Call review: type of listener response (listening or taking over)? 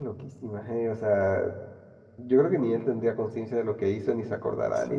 taking over